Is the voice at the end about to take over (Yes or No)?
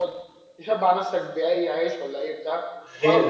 Yes